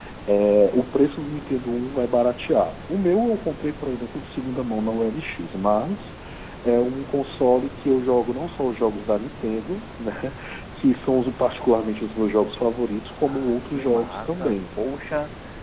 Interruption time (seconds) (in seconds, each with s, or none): 13.2 s